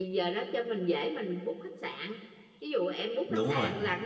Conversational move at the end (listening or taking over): listening